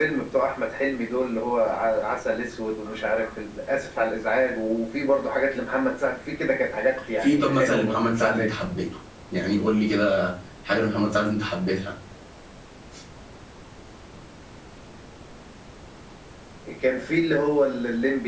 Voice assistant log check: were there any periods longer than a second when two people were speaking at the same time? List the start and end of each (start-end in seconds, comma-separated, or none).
7.2-8.5